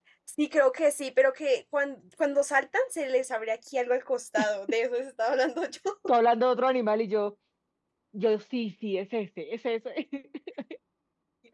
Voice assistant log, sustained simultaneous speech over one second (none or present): none